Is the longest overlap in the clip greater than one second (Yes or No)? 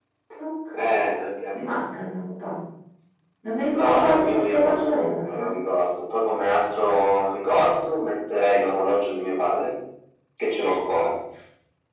Yes